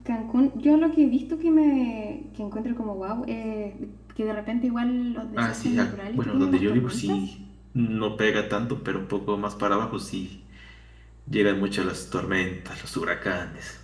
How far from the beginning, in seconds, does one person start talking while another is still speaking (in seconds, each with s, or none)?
5.4 s